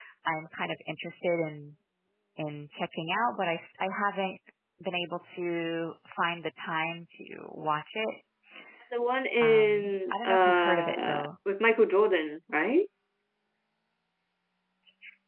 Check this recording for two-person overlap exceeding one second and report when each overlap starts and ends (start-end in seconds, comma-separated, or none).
9.4-11.3